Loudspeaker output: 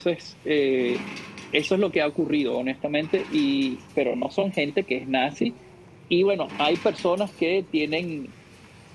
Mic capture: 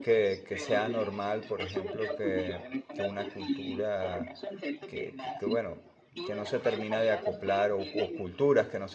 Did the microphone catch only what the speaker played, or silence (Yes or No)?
No